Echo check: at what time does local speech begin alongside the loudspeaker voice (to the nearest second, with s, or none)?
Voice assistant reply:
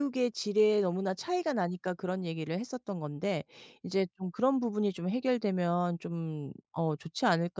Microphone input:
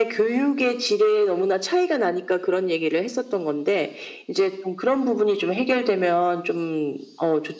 none